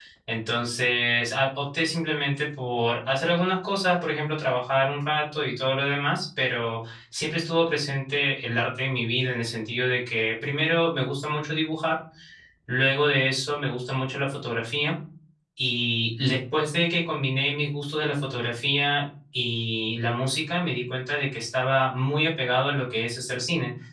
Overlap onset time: none

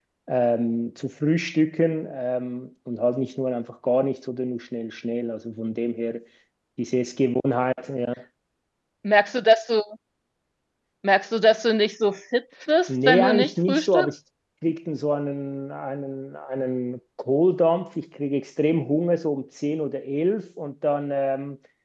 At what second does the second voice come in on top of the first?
12.9 s

